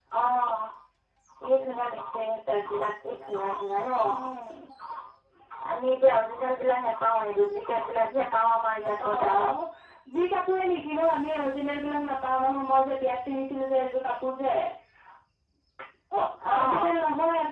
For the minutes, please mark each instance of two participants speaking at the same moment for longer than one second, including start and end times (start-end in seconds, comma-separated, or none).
none